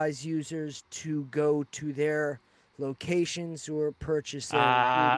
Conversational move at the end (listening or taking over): taking over